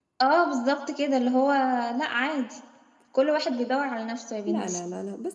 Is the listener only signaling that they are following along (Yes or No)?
No